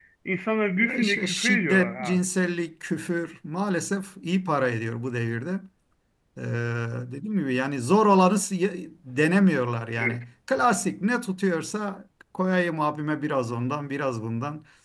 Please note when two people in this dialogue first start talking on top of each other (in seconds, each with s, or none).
0.8 s